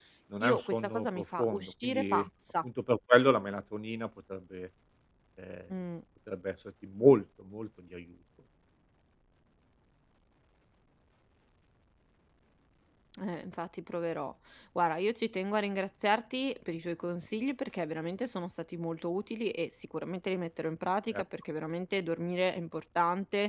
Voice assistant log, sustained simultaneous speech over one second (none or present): present